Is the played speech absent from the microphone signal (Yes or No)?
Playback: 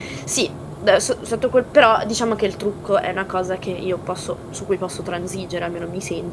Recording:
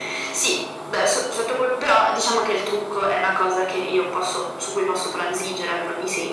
No